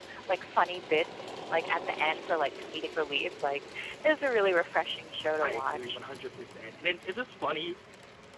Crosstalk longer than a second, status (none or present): none